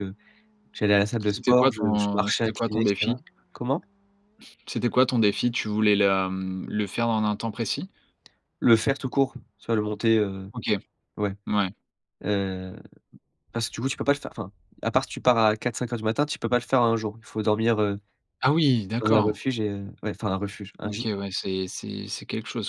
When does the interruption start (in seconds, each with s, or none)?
1.3 s